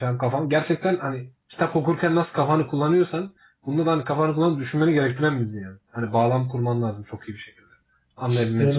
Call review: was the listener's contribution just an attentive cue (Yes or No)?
No